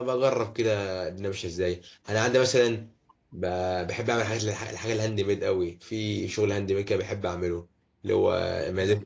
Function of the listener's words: listening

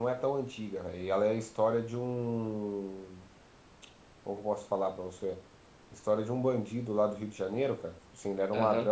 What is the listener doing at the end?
listening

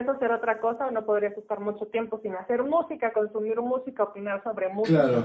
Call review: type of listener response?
taking over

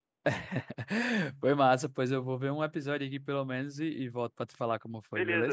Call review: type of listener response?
taking over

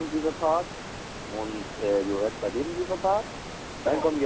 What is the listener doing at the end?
listening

